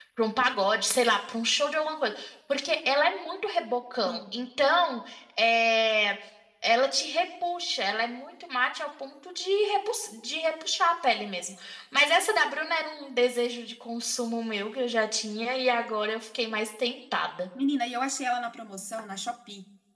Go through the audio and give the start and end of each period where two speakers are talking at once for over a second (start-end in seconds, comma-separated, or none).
none